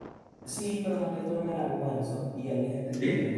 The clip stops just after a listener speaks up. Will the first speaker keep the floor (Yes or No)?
Yes